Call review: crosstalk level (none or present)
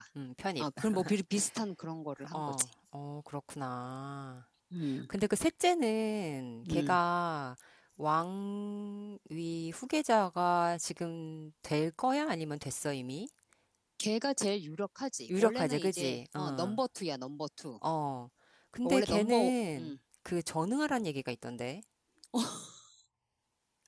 present